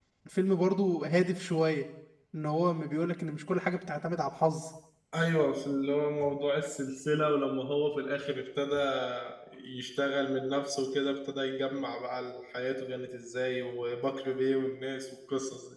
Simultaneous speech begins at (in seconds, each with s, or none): none